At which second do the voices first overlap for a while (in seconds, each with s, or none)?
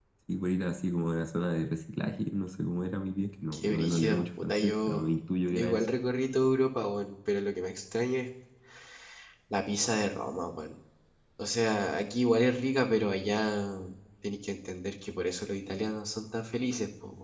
3.5 s